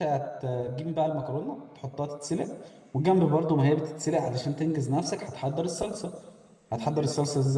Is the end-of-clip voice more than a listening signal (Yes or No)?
No